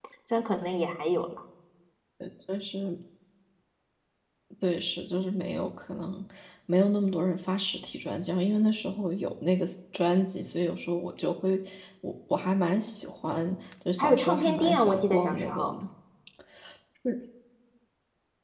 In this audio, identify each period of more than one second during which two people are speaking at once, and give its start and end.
14.0-15.7

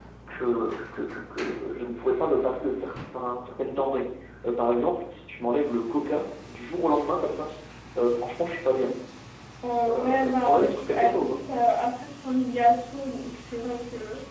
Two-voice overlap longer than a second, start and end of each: 9.9-11.3

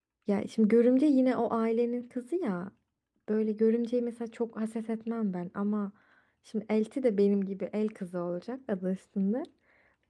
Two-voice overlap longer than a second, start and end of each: none

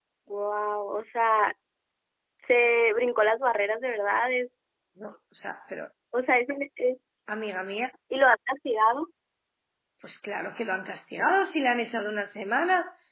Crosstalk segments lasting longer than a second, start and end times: none

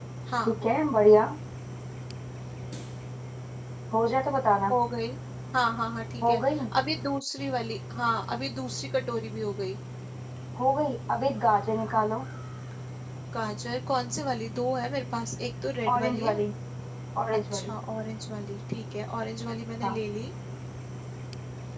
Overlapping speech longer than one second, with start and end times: none

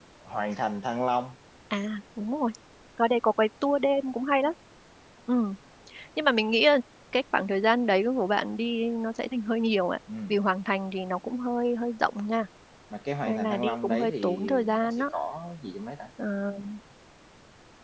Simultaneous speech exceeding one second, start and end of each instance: 13.3-15.0

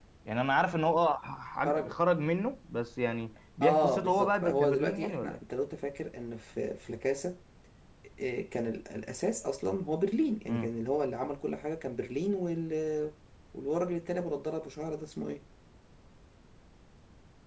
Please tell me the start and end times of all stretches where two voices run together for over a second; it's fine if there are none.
3.6-5.4

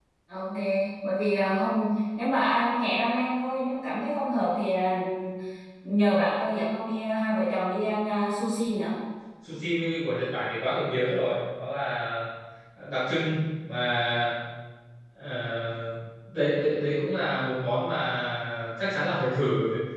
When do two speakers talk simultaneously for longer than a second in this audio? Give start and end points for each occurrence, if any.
none

